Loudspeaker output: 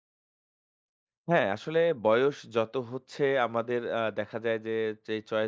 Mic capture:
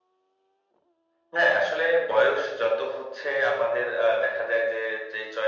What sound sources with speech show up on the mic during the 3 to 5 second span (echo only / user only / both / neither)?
echo only